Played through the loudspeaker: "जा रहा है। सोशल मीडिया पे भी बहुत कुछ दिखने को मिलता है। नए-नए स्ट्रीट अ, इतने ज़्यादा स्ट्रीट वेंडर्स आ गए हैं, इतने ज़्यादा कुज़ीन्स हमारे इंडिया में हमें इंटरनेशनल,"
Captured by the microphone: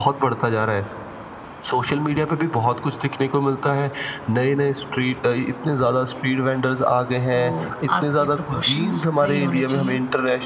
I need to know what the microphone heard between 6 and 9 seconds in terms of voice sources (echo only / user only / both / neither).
both